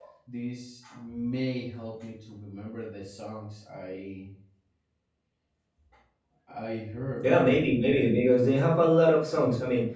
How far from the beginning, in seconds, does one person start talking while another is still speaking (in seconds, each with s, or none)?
none